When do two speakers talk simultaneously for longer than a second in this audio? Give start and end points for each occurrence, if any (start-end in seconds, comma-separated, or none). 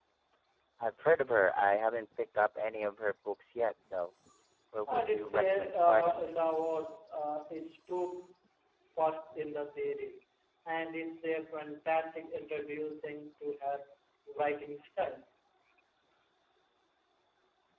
4.9-6.2